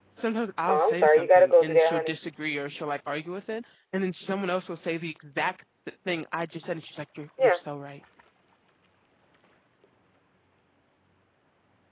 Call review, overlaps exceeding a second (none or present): present